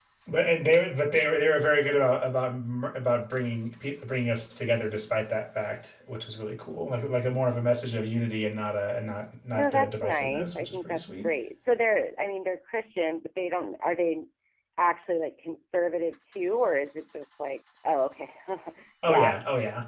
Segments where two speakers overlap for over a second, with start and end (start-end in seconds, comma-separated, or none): 9.5-11.3